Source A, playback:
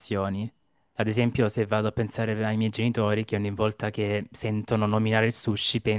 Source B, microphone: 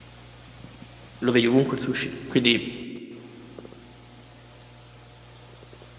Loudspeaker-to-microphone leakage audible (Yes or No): No